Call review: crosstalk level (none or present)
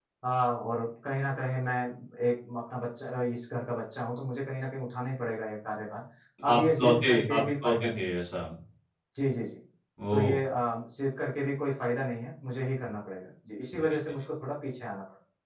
present